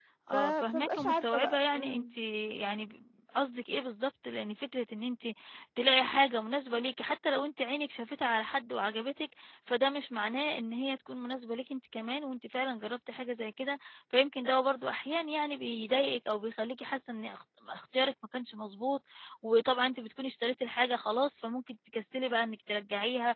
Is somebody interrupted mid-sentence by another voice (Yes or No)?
Yes